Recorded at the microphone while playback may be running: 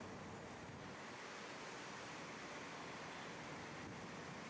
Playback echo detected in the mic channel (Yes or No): No